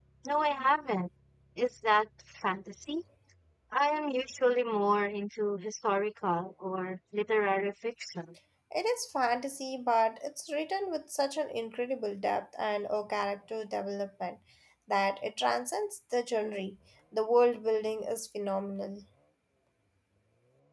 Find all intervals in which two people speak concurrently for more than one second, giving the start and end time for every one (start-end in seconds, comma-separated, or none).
none